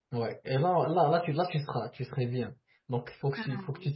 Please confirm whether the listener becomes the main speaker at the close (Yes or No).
No